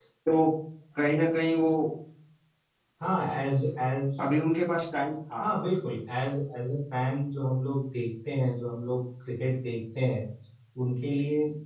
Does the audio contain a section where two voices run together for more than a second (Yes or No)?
No